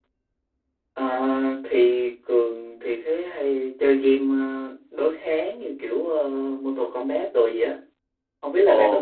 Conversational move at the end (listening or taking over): taking over